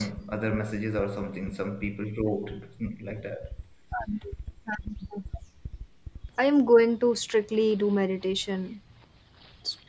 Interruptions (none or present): none